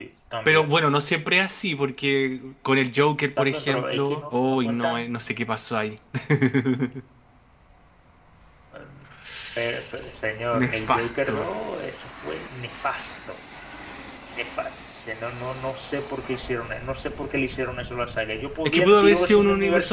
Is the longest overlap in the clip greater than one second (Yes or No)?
Yes